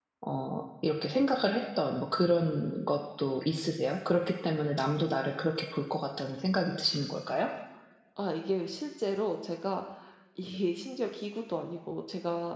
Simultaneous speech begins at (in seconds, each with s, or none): none